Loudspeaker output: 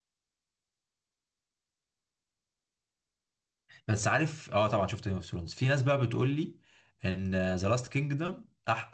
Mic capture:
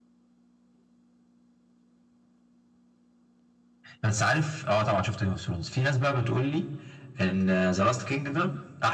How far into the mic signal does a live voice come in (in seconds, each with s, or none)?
none